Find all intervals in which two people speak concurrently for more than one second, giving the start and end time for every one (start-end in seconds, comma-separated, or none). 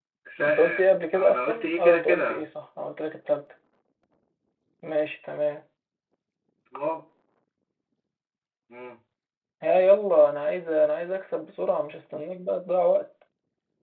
1.1-2.4